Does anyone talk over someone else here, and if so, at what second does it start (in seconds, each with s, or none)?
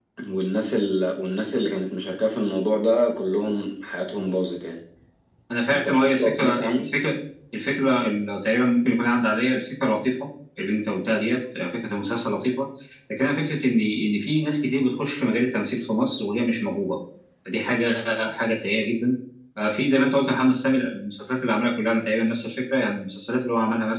5.7 s